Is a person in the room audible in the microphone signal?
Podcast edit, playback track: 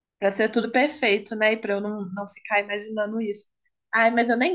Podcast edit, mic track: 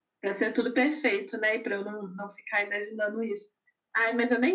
No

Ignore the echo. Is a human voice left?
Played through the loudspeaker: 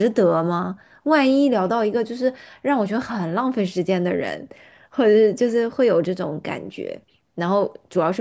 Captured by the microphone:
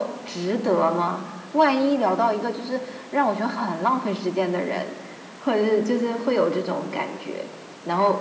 No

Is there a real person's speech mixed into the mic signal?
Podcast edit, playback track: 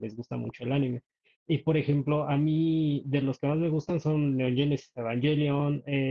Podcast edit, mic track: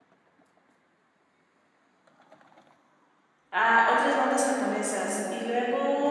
Yes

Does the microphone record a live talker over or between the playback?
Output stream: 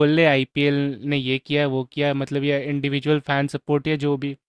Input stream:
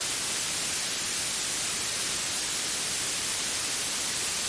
No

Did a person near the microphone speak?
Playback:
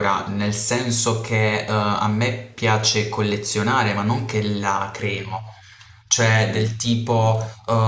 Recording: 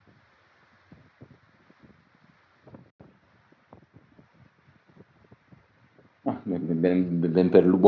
Yes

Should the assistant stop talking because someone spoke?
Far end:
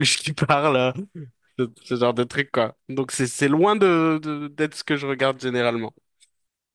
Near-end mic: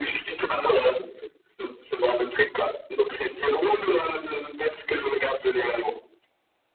No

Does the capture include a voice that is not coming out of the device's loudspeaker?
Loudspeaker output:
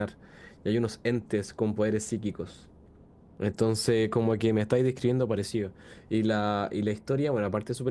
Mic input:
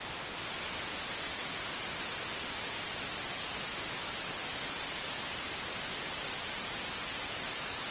No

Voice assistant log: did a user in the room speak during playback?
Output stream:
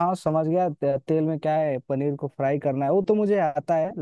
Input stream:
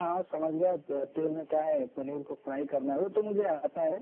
No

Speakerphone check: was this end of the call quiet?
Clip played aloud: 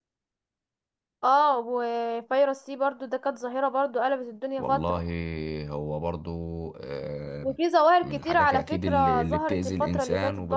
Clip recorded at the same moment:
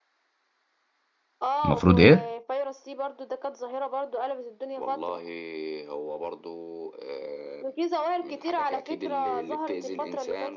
No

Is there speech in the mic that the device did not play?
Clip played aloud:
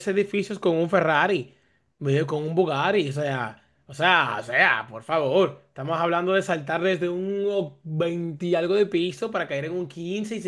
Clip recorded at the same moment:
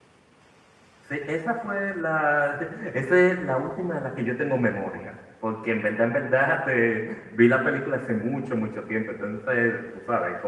Yes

